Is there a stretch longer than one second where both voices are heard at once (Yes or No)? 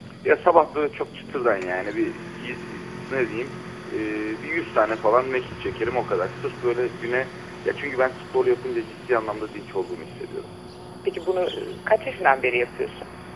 No